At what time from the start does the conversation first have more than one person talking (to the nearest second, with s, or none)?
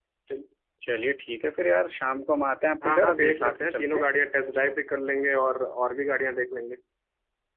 3 s